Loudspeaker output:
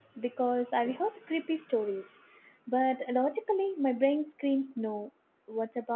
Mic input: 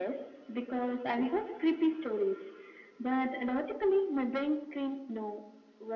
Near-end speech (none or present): none